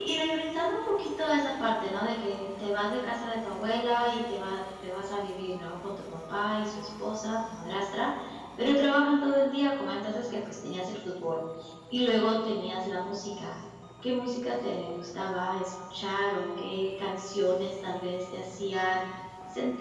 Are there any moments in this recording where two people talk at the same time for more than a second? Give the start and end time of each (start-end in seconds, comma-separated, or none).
none